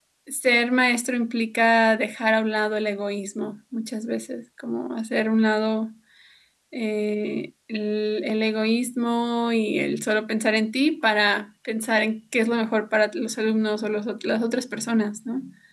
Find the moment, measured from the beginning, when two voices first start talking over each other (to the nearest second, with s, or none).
none